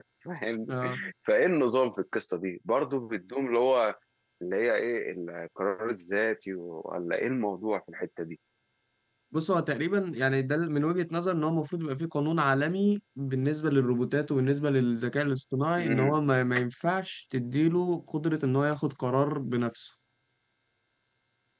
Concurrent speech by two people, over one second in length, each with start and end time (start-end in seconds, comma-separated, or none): none